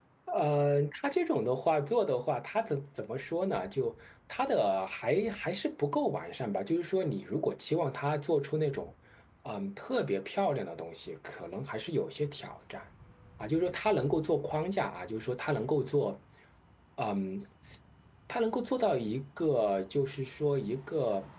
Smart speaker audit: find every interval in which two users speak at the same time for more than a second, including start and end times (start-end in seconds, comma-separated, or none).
none